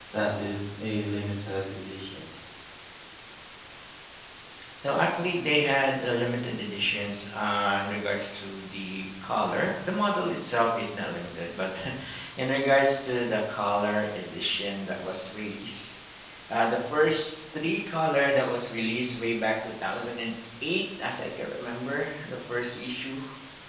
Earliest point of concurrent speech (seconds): none

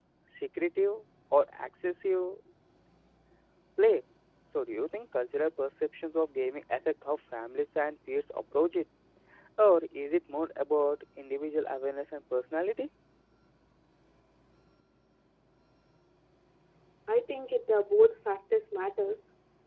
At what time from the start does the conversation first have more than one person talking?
none

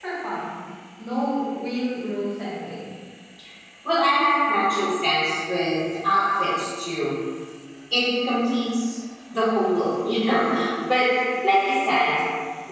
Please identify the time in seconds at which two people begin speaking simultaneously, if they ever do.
none

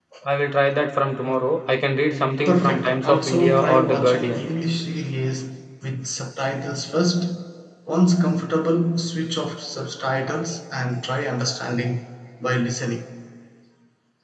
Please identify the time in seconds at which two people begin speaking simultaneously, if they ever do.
2.4 s

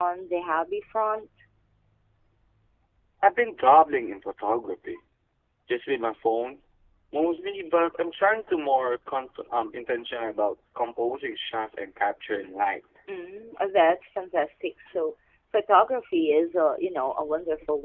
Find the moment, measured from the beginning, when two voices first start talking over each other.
none

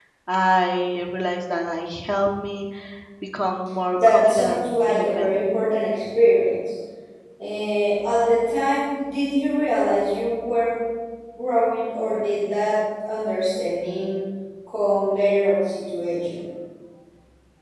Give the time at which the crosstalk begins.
4.0 s

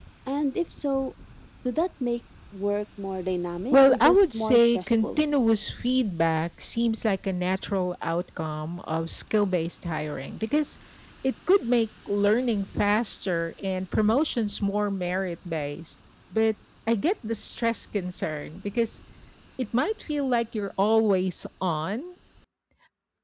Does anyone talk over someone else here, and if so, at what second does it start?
3.7 s

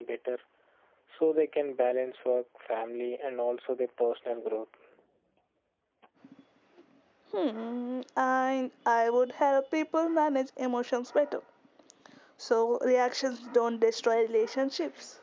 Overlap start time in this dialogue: none

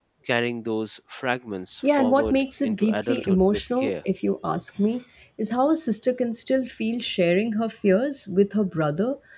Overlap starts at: 1.8 s

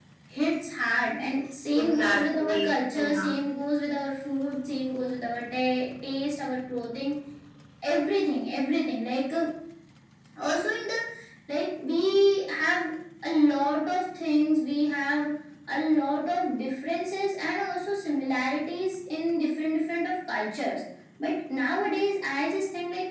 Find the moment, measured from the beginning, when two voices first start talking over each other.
1.8 s

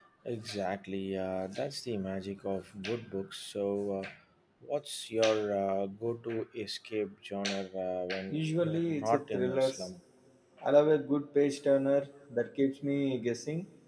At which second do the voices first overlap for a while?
8.3 s

